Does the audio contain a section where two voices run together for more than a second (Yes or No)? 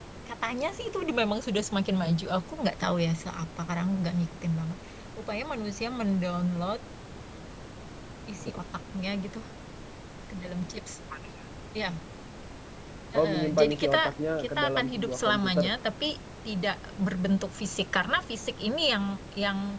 Yes